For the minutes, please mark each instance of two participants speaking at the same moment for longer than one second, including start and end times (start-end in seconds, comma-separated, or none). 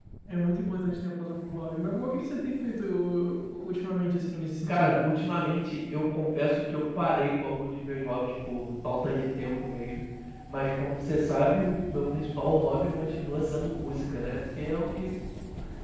none